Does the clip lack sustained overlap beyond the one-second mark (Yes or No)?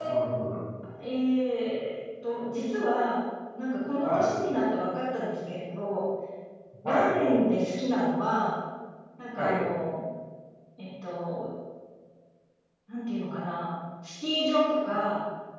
Yes